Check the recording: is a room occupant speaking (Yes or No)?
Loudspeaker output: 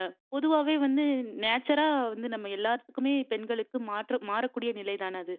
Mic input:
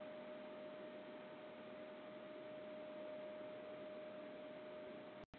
No